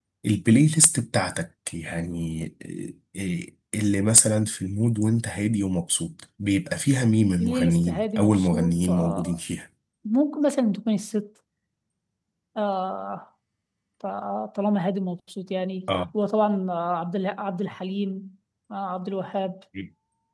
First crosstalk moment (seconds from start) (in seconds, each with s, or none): 7.4 s